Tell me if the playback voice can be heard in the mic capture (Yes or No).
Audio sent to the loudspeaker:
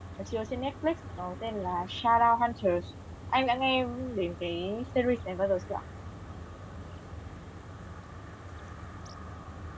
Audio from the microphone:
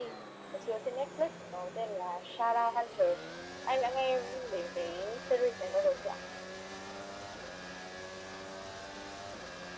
Yes